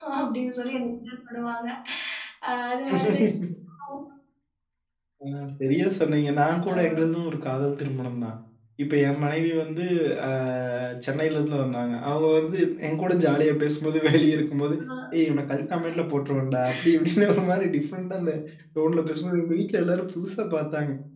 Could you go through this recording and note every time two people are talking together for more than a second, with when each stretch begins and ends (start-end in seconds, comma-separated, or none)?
none